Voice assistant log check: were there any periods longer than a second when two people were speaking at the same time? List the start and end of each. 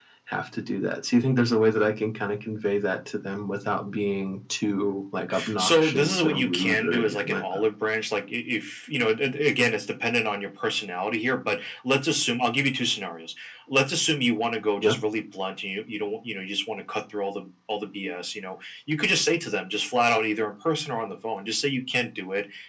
5.6-7.6

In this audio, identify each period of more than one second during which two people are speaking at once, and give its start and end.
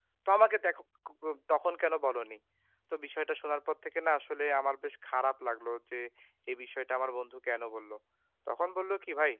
none

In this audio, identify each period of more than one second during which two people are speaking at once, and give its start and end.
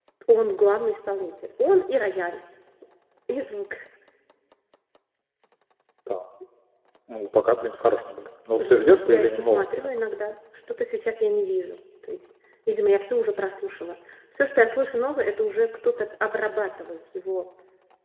8.6-9.9

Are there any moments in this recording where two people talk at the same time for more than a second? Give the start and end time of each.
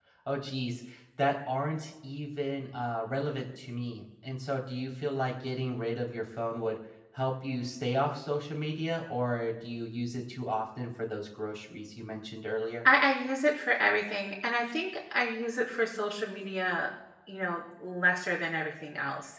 none

